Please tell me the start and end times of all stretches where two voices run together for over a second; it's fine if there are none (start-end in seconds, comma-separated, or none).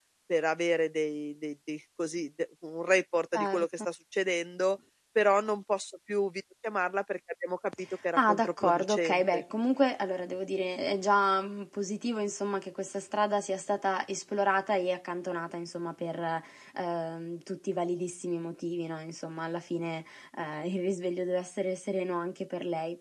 8.2-9.4